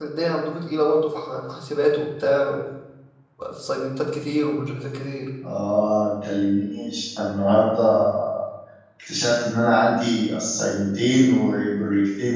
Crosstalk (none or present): none